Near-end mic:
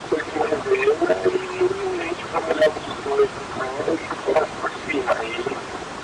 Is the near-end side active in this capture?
No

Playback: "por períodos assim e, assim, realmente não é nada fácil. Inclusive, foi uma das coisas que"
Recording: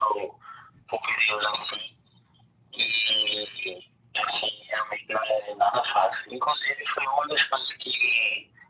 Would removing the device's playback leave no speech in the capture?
Yes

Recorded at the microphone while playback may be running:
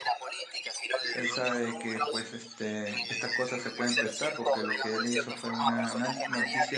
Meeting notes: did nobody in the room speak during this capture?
No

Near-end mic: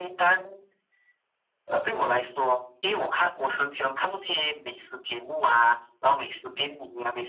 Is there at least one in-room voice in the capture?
No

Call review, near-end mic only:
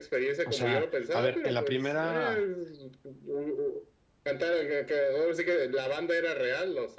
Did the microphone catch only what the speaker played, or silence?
No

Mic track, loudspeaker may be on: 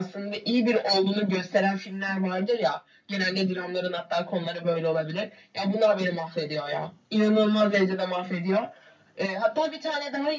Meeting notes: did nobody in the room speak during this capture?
Yes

